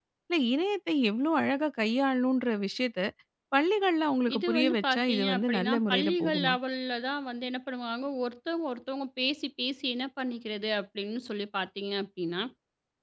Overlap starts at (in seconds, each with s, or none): 4.3 s